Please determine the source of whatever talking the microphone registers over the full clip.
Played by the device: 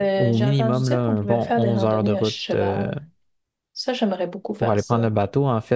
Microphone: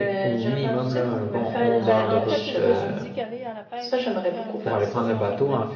both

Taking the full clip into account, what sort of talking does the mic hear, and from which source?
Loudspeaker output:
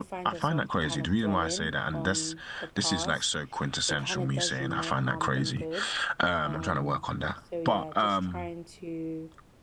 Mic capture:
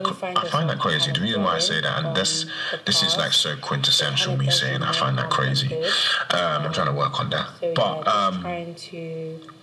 echo only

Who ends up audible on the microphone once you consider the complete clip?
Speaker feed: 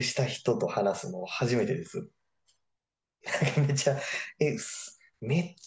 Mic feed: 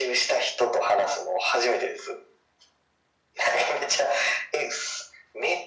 echo only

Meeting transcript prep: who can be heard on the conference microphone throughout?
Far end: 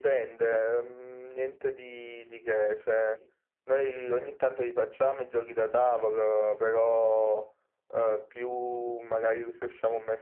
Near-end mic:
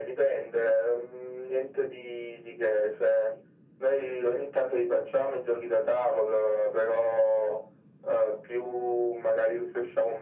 echo only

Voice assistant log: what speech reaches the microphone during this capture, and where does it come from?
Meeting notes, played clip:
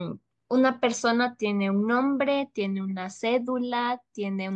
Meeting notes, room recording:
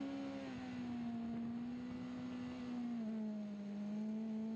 neither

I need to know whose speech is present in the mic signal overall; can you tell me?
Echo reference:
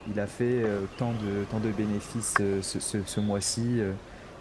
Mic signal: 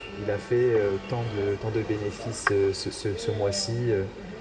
both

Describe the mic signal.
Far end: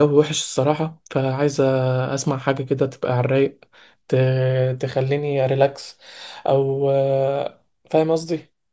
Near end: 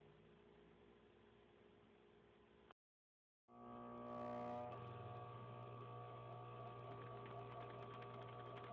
neither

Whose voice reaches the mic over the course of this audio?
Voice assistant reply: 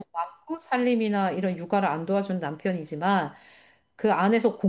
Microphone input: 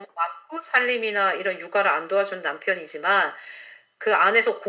echo only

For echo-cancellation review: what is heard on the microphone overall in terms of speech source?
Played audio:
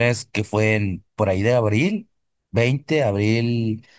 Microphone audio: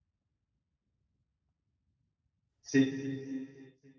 user only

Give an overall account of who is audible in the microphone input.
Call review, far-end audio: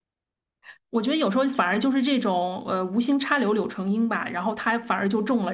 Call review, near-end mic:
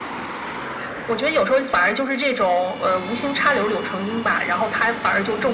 echo only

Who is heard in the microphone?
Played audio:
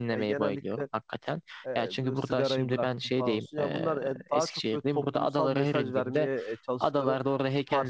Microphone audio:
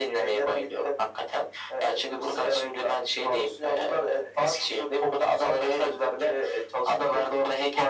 echo only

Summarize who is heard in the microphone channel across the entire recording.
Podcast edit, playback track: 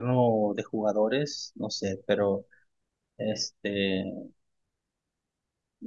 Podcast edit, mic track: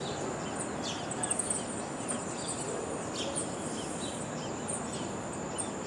neither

